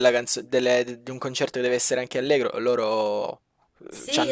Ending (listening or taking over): taking over